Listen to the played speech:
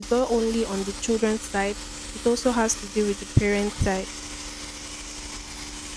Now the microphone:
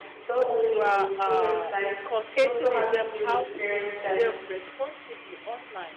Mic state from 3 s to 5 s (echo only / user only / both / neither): both